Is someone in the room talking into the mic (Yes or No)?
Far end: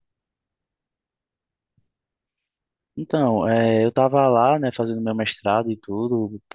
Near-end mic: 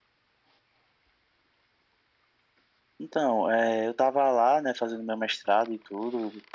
No